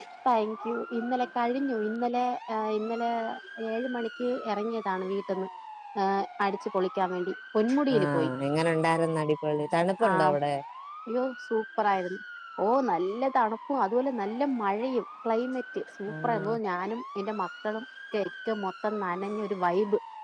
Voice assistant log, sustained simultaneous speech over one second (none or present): none